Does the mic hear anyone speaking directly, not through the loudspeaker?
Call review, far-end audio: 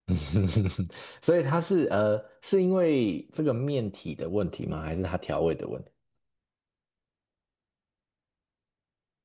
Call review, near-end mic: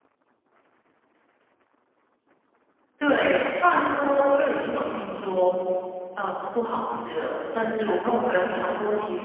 Yes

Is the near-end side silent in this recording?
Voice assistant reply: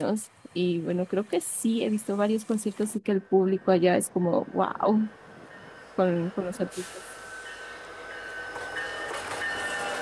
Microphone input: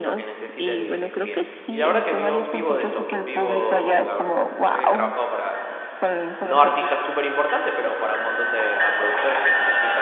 No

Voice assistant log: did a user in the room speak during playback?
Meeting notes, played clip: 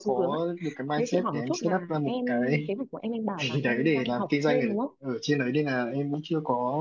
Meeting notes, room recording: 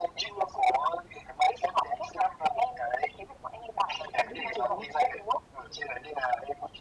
Yes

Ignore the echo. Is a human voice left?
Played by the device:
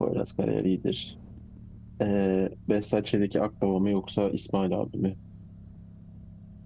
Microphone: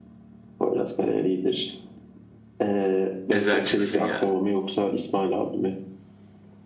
Yes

